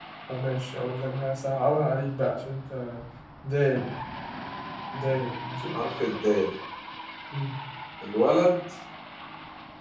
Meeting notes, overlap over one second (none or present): none